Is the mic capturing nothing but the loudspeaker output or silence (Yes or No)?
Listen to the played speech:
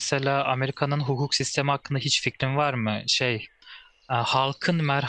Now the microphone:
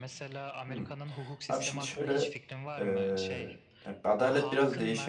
No